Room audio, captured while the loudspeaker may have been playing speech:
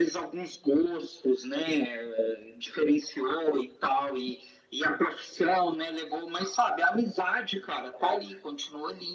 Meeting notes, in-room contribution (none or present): none